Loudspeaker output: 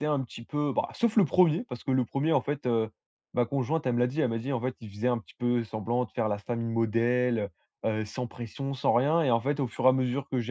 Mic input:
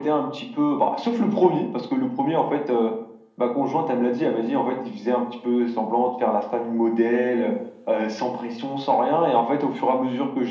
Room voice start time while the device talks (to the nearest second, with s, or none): none